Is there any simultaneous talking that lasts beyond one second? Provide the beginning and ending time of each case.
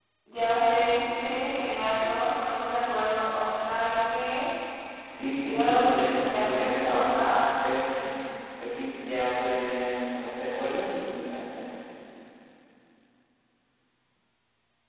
5.4-7.4

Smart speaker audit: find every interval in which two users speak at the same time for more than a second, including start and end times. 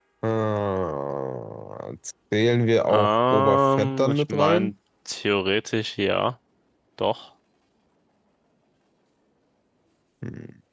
2.9-4.7

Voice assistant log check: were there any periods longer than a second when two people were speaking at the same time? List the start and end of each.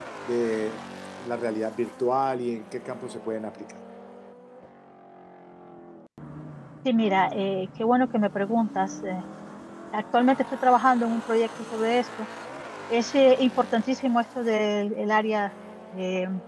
none

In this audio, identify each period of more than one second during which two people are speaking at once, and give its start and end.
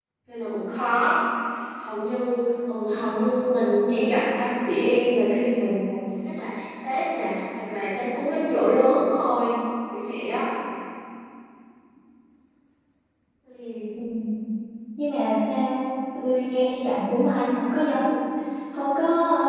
none

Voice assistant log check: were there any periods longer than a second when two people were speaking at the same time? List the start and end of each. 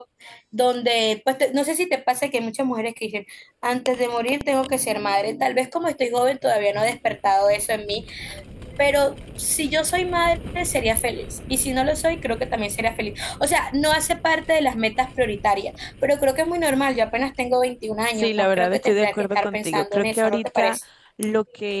18.1-20.8

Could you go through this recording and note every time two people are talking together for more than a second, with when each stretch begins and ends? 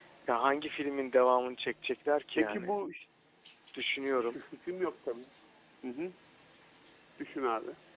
none

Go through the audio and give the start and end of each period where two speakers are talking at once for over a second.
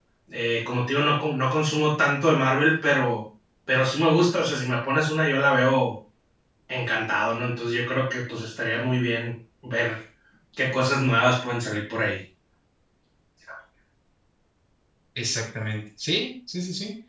none

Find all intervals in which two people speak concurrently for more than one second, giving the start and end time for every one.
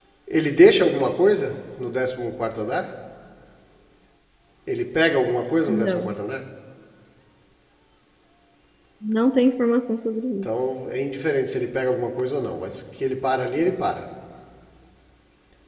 none

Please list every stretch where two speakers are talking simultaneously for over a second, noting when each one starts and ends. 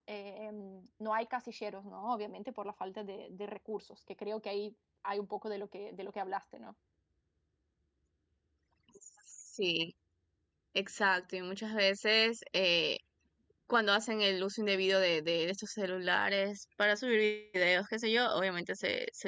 none

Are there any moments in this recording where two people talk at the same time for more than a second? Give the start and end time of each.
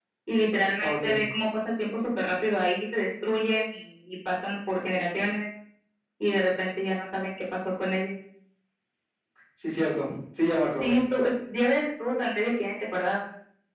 none

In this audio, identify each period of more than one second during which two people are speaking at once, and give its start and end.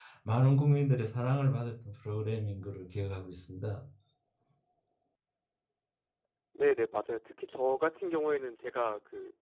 none

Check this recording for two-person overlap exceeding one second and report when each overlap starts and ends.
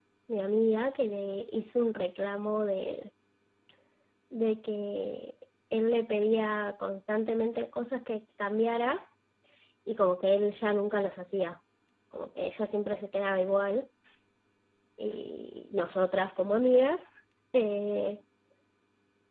none

